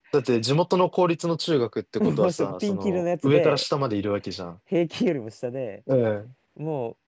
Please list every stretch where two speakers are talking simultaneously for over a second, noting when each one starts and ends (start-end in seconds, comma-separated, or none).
2.0-3.6